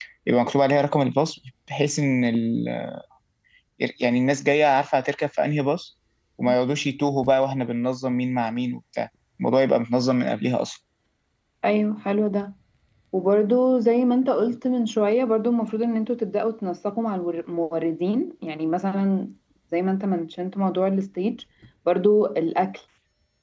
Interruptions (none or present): none